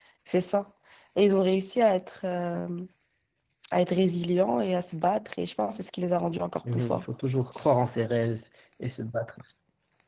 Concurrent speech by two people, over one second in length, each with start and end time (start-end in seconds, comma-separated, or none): none